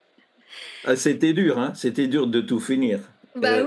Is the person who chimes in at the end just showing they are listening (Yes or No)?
No